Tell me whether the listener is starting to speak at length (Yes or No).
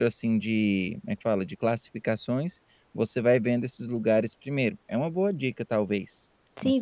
Yes